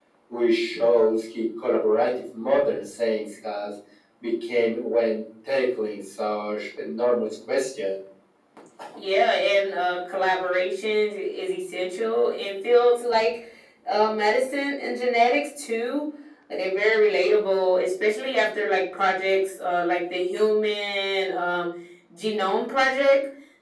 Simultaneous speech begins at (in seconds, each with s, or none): none